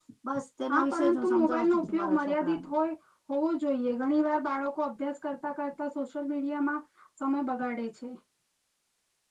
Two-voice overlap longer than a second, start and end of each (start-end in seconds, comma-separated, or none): 0.7-2.7